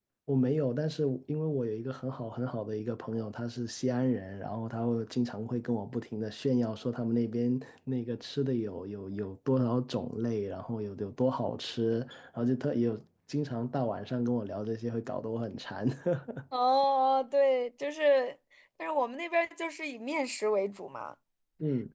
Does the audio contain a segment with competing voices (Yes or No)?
No